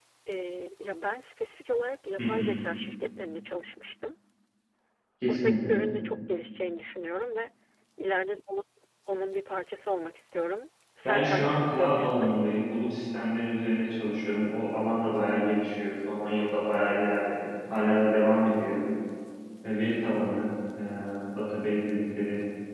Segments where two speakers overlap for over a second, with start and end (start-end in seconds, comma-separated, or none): 11.1-12.3